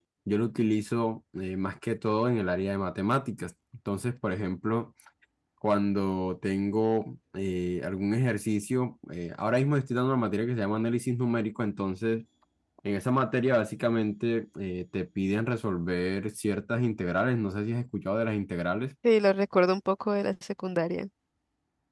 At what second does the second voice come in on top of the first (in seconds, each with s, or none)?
none